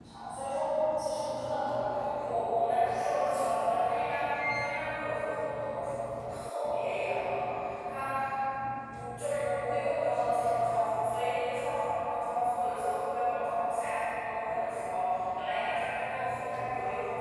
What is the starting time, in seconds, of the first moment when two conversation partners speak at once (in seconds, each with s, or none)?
1.8 s